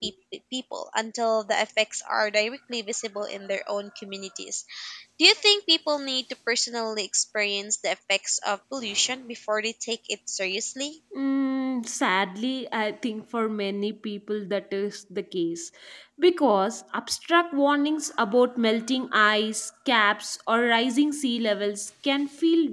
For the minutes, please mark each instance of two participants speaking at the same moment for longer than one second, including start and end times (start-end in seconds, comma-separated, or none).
none